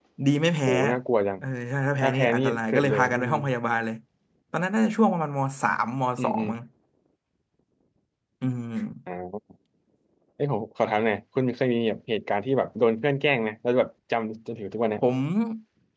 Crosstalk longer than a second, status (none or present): present